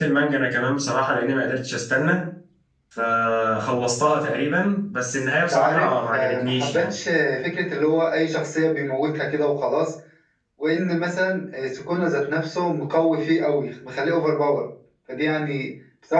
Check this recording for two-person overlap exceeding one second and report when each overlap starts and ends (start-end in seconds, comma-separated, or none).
5.5-6.9